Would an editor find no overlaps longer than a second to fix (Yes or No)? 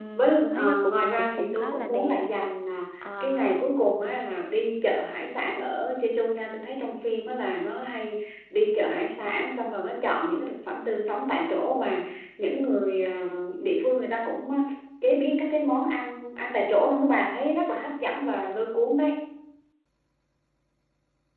No